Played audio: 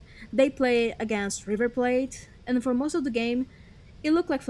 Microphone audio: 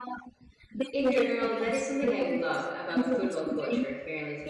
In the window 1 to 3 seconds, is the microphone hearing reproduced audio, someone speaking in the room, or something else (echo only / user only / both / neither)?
both